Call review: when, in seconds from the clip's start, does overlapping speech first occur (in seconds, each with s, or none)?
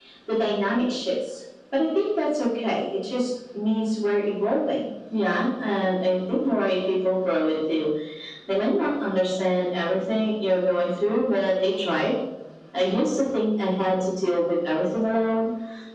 none